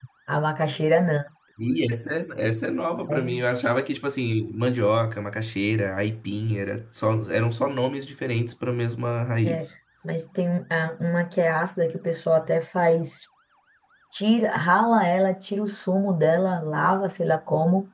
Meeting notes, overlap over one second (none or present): none